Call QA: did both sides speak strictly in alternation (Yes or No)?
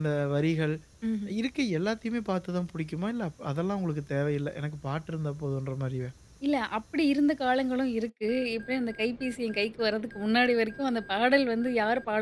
Yes